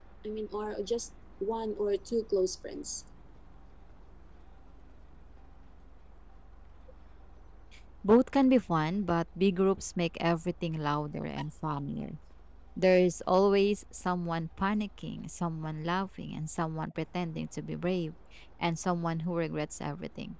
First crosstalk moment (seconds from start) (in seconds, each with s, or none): none